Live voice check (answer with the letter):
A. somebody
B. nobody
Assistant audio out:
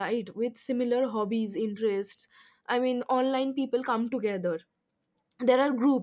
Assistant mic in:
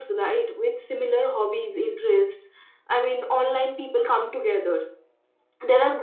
B